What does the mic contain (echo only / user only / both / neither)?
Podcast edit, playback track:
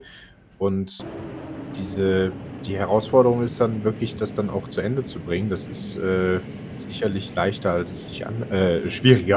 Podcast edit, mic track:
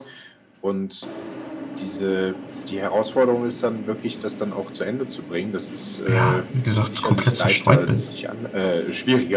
both